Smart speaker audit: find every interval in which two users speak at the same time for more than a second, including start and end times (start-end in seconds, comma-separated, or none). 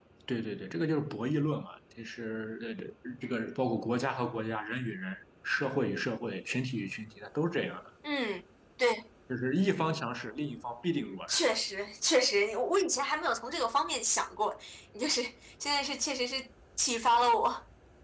none